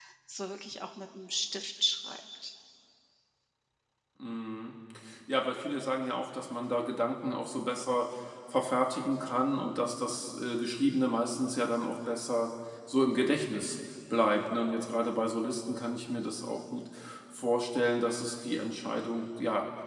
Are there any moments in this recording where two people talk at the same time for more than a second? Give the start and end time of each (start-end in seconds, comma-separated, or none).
none